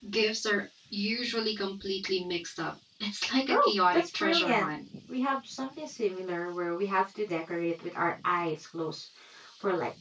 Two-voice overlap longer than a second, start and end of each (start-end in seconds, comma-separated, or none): 3.5-4.7